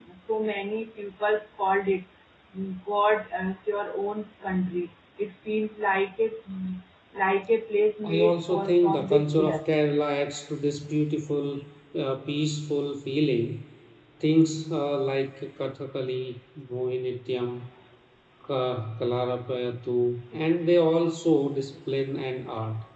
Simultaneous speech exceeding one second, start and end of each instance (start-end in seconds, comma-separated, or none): 8.0-9.7